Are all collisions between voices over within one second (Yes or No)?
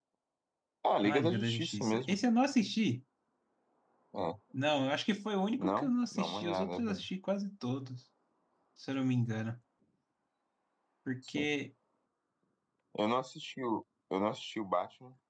No